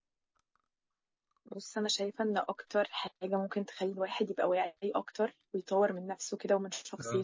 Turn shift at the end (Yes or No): No